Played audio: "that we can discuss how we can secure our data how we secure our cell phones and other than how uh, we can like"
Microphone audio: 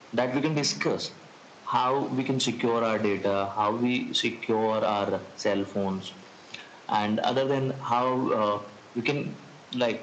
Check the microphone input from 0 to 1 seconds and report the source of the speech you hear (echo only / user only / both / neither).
both